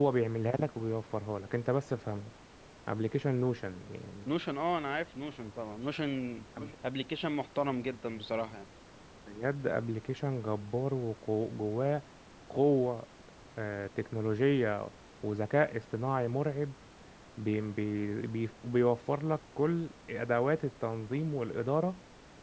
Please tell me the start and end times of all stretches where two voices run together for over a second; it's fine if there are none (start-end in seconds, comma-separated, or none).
none